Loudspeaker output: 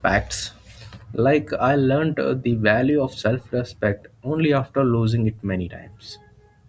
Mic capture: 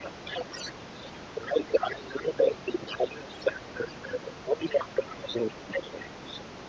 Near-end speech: none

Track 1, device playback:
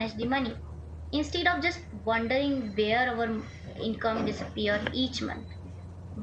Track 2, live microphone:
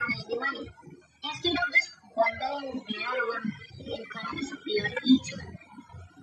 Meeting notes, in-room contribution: none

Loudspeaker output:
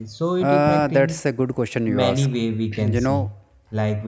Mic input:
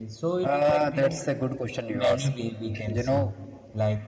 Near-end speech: none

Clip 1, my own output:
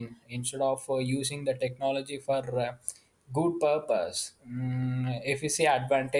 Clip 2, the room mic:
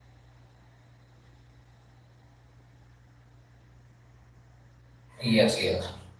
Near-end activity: present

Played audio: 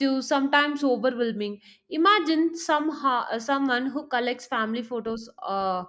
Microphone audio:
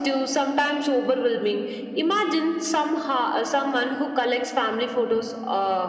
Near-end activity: none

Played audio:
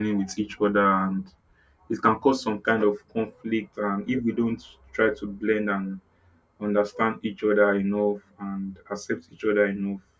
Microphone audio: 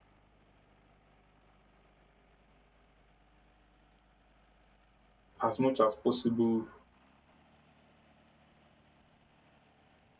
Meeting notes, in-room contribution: present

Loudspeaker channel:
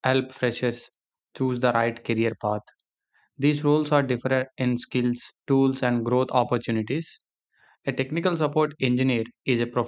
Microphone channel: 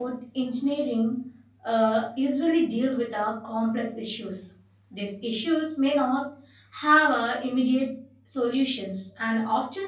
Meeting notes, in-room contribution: present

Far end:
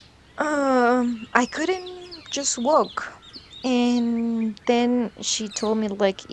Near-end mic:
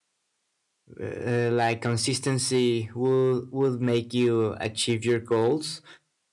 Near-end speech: present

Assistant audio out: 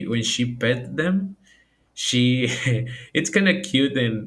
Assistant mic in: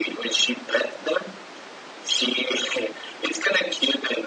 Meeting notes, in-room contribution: none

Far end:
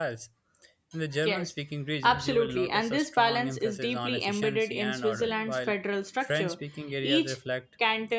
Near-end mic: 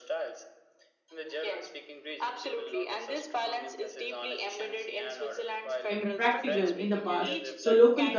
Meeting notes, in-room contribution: present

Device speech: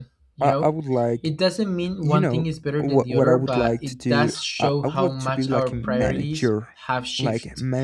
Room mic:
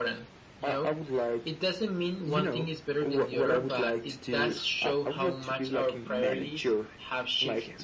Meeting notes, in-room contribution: none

